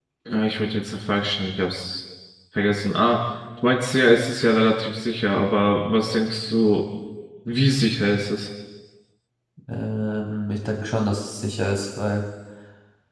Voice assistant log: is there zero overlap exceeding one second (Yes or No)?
Yes